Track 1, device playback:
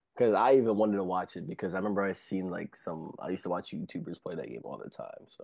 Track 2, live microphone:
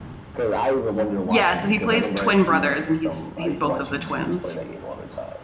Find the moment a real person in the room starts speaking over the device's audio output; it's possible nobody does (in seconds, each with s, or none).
1.2 s